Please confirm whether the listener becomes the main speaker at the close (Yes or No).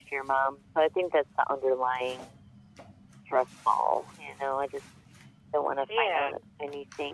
No